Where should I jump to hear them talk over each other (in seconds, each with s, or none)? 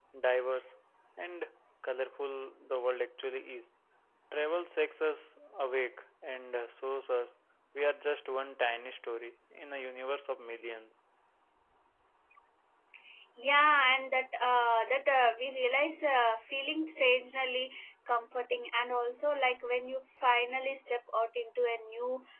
none